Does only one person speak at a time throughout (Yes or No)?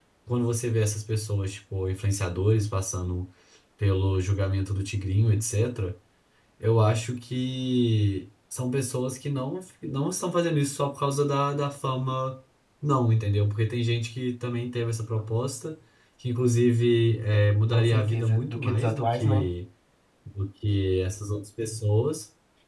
No